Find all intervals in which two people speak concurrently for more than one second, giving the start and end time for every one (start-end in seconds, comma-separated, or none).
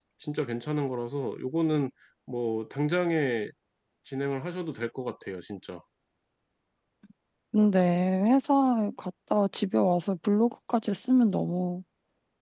none